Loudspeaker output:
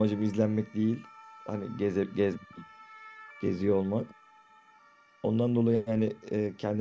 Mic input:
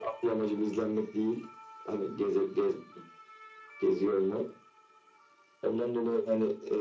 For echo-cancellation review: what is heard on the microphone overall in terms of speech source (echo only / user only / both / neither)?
echo only